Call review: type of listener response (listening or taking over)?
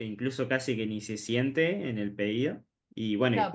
taking over